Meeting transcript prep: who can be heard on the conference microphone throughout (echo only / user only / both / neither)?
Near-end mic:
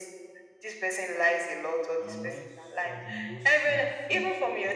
both